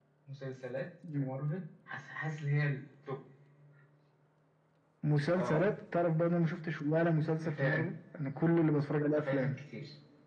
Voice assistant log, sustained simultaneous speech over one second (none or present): none